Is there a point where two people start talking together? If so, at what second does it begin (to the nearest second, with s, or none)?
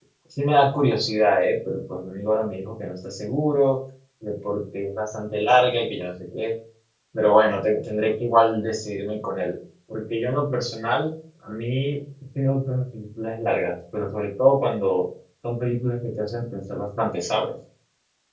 none